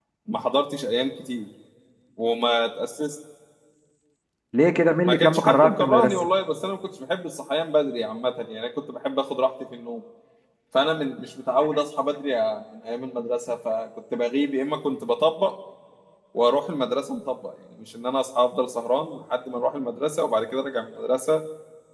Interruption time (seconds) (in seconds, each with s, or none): 5.0 s